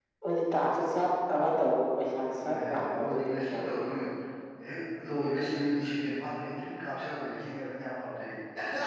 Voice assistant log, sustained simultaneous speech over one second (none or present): present